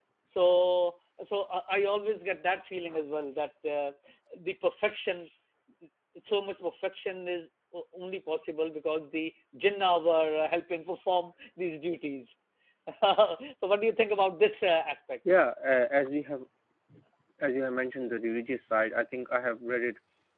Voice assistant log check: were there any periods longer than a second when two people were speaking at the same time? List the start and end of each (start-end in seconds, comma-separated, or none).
none